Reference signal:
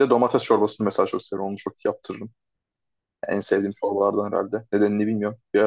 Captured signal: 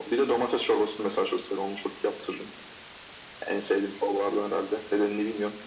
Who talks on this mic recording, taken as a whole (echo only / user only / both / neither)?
echo only